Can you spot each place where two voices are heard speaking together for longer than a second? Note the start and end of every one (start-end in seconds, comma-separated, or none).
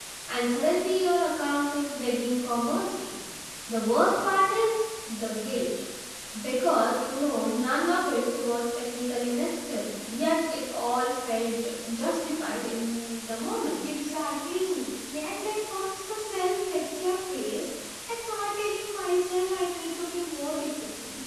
none